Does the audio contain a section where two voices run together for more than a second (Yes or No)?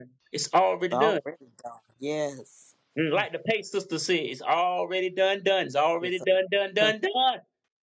No